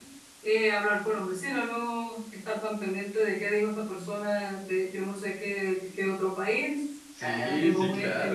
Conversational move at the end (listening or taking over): taking over